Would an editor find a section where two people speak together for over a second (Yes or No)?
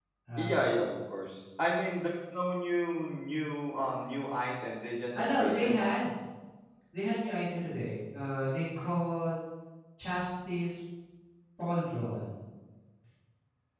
No